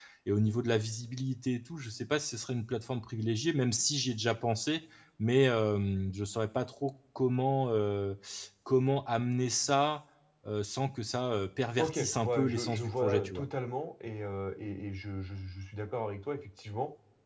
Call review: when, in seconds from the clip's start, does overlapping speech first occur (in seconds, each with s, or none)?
11.8 s